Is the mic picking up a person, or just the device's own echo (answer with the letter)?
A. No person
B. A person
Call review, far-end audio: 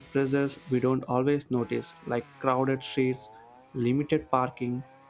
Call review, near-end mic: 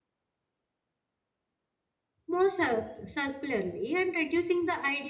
B